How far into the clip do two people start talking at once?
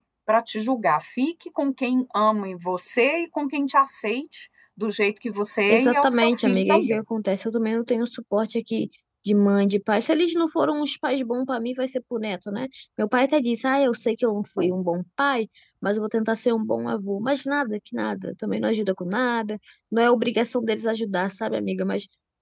6 s

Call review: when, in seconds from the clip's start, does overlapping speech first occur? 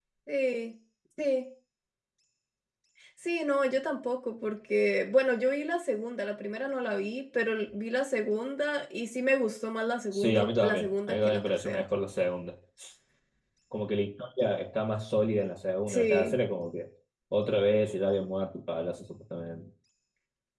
10 s

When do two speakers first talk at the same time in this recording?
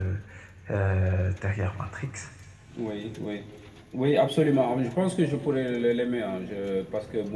none

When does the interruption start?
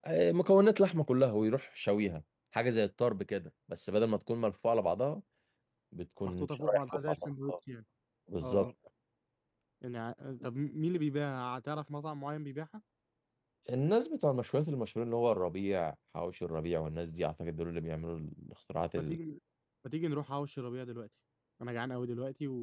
6 s

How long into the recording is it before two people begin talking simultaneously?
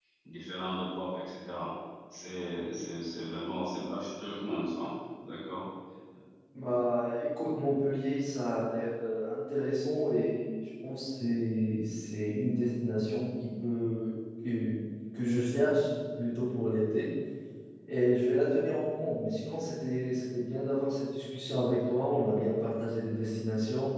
none

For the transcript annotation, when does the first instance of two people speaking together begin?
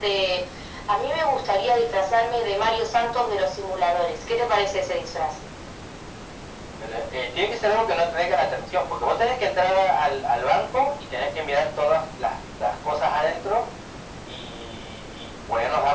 none

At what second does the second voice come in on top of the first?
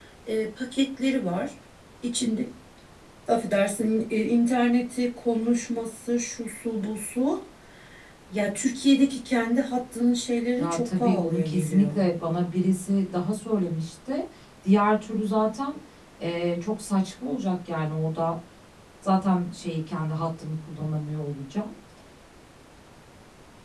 11 s

